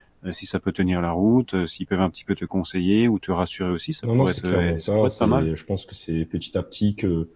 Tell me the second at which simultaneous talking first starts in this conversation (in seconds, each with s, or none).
4.0 s